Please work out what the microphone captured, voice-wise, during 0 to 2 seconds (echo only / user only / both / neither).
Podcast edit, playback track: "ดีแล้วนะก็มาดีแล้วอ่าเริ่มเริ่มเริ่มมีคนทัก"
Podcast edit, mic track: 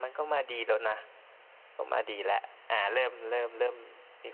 echo only